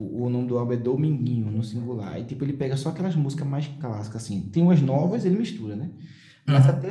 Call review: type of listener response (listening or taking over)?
listening